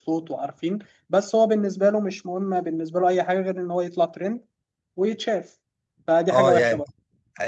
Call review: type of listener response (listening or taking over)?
taking over